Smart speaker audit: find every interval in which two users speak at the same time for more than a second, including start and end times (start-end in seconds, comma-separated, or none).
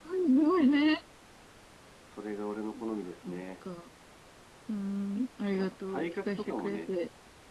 5.6-6.9